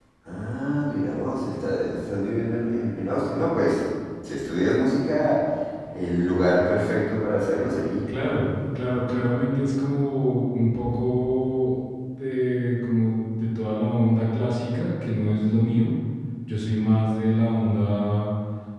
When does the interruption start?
none

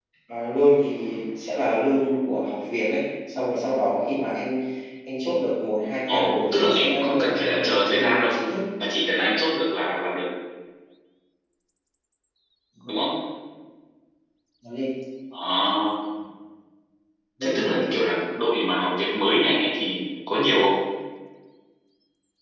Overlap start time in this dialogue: 6.1 s

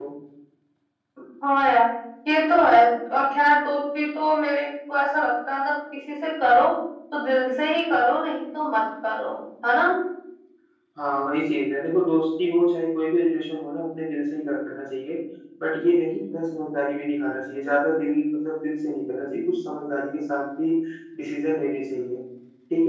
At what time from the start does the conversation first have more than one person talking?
none

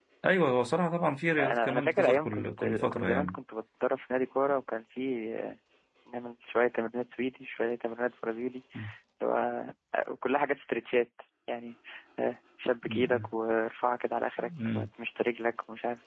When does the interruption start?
1.4 s

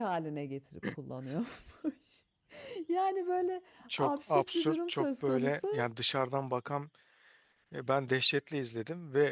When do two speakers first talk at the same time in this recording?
3.9 s

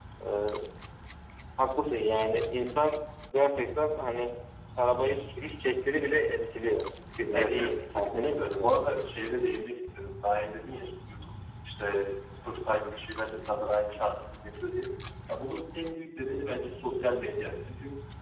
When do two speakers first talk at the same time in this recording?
7.3 s

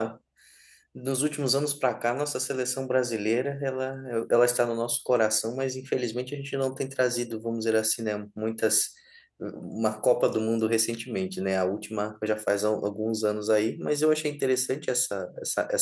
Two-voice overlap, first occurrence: none

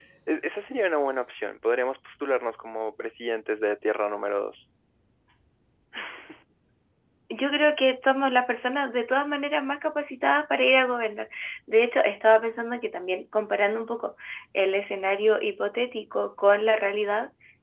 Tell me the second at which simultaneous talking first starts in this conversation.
none

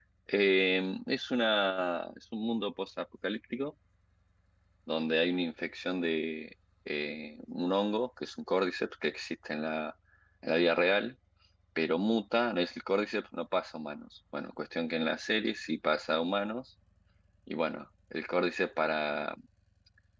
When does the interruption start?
none

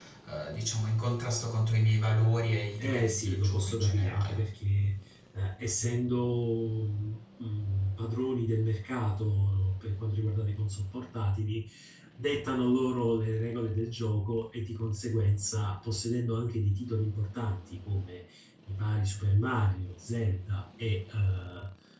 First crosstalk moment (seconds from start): 2.8 s

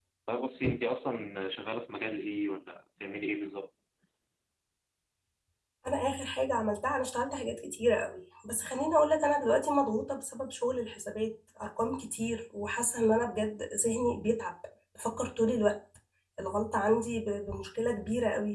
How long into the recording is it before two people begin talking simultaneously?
none

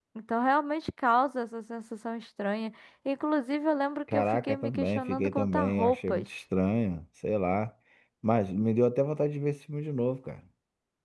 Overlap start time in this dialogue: 4.1 s

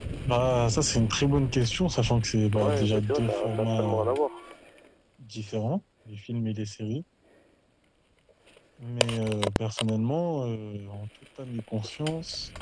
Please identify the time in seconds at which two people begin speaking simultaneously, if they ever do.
2.5 s

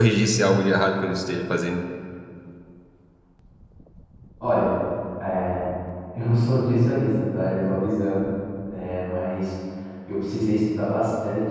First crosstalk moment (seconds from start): none

